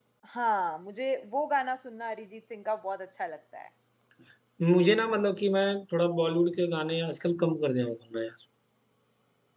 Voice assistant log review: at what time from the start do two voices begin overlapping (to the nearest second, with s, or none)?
none